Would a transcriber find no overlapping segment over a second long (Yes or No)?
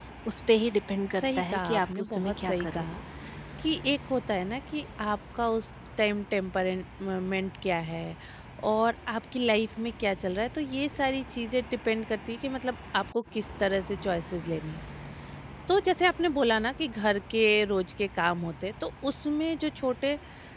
No